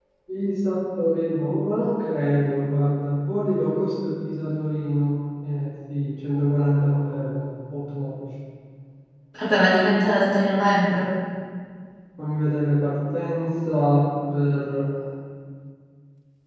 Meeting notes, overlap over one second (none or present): none